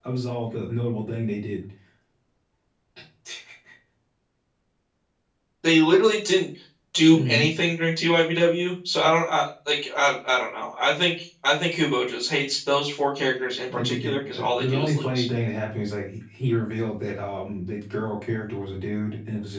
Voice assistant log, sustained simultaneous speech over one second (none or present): present